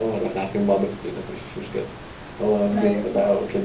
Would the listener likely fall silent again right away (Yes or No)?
Yes